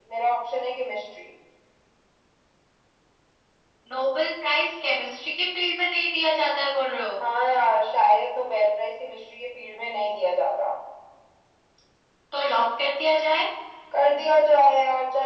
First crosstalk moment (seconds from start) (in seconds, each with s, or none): none